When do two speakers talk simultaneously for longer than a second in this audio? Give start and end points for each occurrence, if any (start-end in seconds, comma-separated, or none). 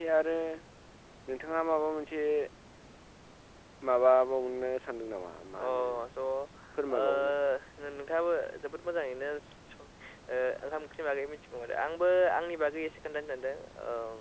none